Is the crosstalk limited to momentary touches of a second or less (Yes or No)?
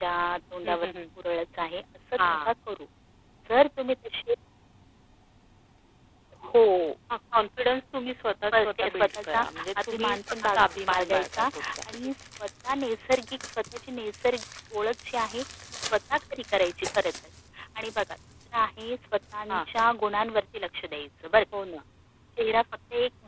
No